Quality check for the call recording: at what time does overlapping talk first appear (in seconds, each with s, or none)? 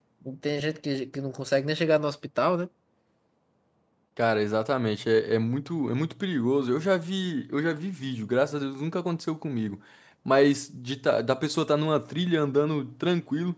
none